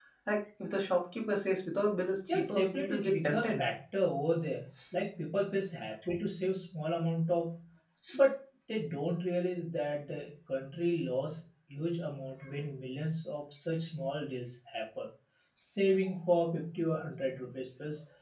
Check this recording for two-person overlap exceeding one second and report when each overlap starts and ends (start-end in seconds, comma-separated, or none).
2.3-3.6